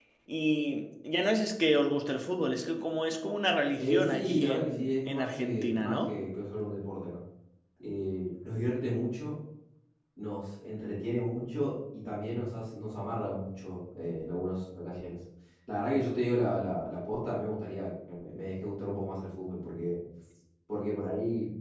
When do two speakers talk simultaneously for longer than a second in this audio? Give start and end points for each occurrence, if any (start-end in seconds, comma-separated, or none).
3.8-6.1